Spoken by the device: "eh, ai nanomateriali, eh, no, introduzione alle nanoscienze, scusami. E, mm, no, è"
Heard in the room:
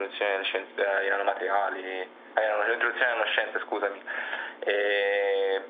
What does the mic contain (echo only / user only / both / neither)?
echo only